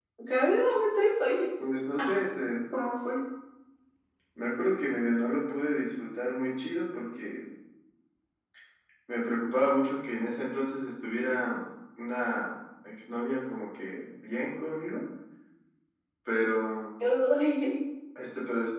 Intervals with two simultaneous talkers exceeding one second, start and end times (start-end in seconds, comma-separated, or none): none